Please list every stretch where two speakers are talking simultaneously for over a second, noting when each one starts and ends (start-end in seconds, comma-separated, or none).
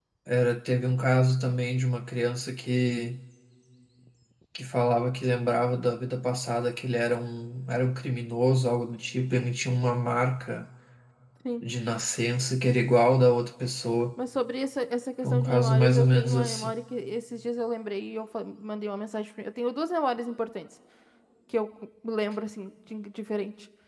15.2-16.7